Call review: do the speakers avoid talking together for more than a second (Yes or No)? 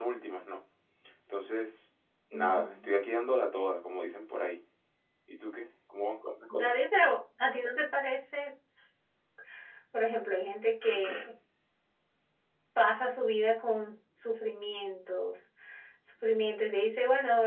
Yes